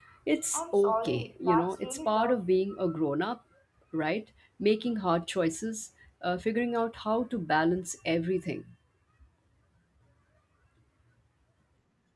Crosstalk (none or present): present